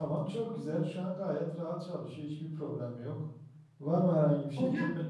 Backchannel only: Yes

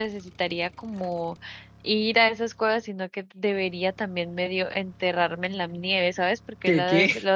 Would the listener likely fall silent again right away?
Yes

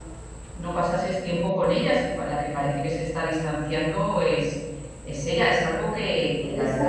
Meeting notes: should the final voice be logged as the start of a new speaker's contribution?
Yes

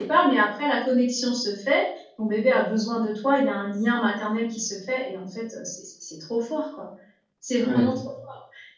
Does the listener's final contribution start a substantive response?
No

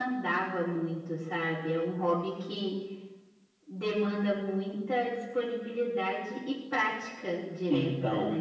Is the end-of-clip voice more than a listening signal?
Yes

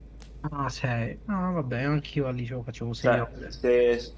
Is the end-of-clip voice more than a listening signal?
Yes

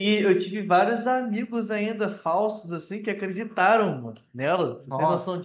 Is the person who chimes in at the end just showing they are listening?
No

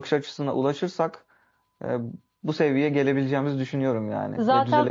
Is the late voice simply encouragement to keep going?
No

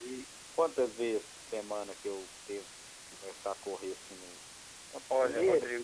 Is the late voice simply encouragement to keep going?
No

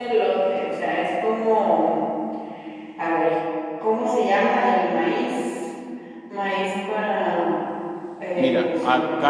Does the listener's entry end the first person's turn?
Yes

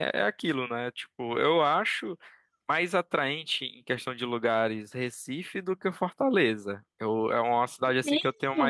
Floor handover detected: No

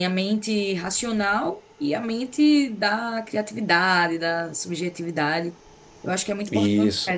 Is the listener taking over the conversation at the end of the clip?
No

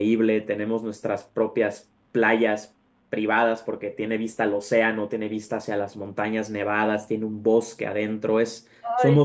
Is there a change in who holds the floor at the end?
Yes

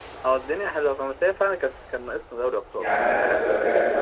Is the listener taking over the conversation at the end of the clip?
Yes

